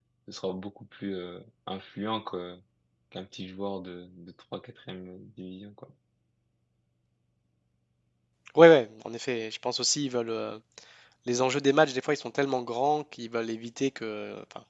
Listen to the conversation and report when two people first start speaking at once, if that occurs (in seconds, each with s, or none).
none